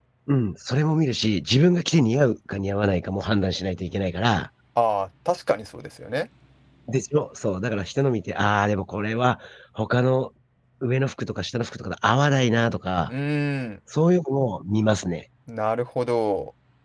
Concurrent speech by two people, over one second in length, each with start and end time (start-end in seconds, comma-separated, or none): none